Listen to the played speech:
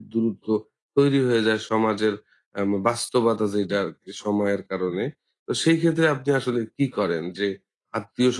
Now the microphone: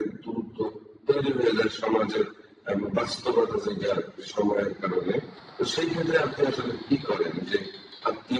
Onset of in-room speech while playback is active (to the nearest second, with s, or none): none